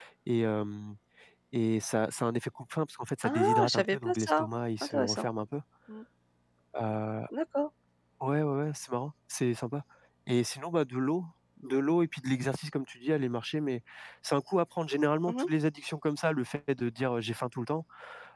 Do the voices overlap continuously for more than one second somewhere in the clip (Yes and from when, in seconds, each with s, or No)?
Yes, from 3.2 s